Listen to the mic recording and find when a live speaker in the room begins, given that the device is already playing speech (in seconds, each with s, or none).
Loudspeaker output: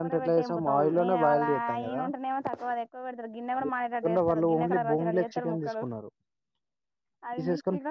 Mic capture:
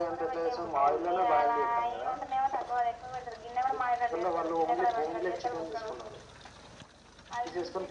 none